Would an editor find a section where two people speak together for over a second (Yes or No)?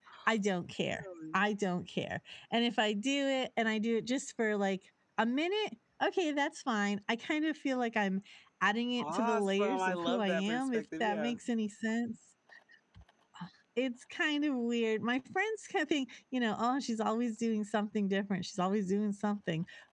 Yes